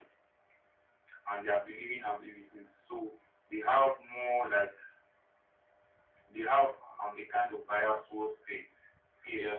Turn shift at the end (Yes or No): No